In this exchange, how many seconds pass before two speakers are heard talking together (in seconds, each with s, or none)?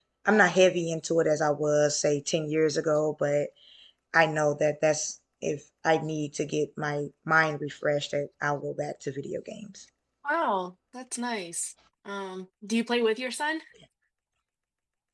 none